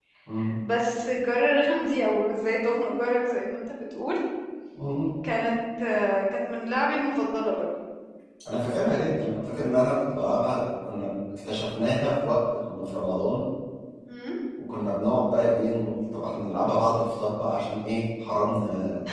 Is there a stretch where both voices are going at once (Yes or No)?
No